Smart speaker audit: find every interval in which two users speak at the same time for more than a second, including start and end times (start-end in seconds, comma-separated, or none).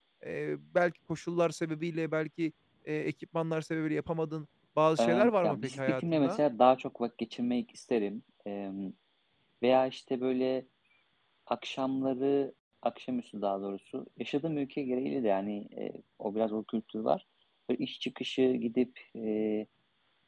5.0-6.4